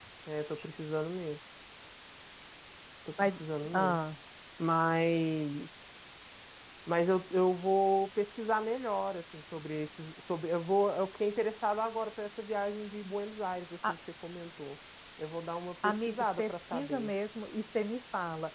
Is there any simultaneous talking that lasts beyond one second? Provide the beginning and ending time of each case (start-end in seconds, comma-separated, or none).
15.8-17.1